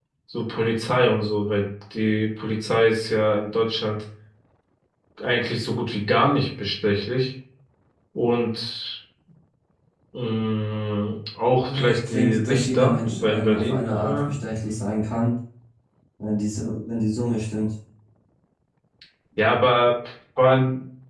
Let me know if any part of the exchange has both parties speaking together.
Yes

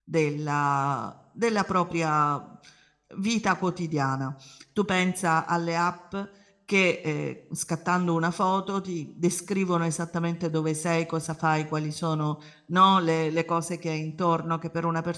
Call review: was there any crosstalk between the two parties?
No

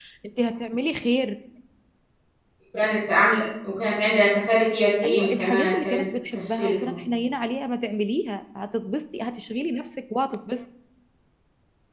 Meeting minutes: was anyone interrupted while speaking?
Yes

